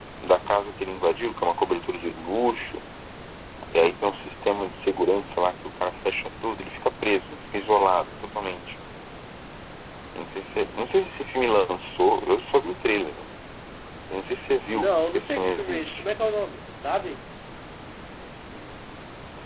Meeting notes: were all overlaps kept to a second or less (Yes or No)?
No